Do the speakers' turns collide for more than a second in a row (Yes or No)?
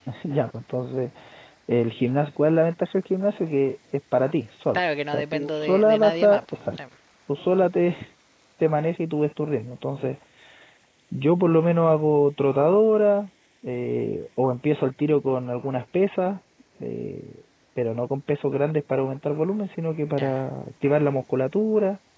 Yes